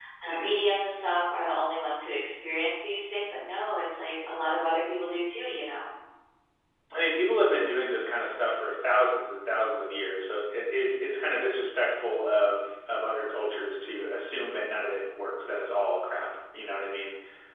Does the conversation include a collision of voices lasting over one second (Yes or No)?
No